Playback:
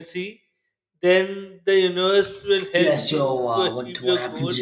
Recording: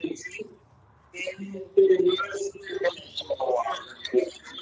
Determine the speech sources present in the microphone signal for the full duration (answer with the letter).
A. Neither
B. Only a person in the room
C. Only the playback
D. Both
C